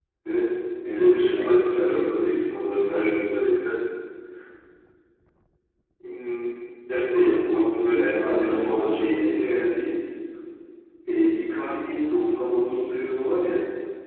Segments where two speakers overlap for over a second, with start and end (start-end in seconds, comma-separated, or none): 0.9-2.1, 7.2-9.5